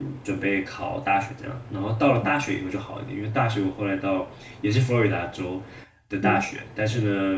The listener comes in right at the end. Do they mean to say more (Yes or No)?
No